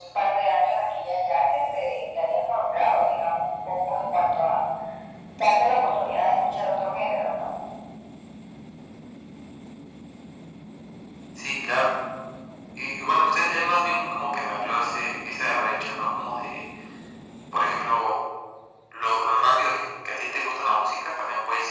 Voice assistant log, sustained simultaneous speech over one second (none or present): none